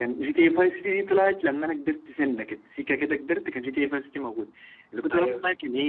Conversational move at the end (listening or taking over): listening